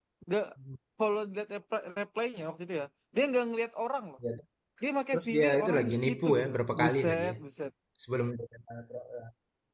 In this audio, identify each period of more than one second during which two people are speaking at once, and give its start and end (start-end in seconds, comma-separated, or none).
5.1-7.4